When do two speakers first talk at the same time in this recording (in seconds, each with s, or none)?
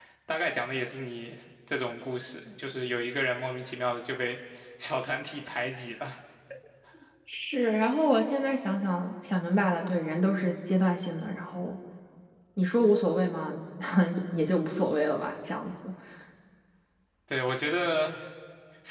none